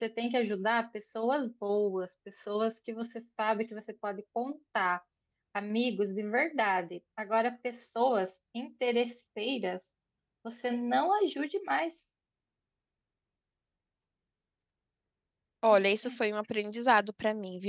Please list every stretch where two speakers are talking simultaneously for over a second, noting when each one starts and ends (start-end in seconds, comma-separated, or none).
none